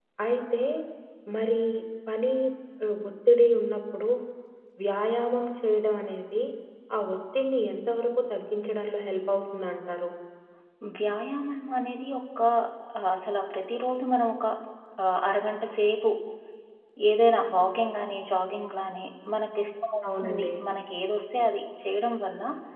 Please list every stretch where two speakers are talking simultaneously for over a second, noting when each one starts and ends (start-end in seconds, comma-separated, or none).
none